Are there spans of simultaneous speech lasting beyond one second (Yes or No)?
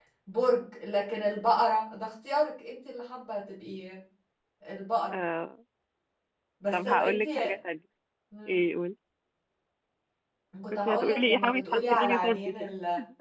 Yes